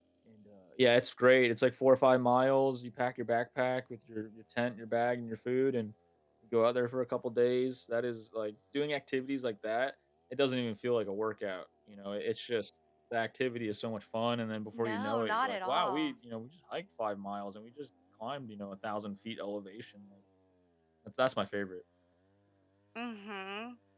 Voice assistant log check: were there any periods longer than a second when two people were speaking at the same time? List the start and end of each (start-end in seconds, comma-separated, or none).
14.8-16.1